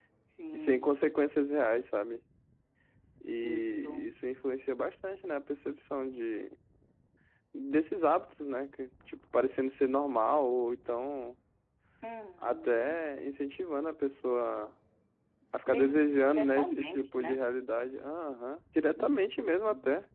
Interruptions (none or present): present